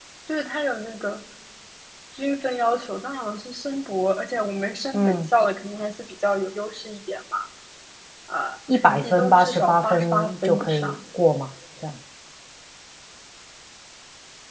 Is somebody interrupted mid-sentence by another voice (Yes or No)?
Yes